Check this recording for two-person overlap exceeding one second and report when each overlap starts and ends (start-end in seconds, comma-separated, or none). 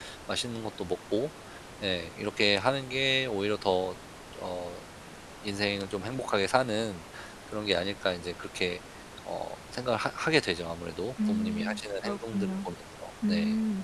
11.3-12.7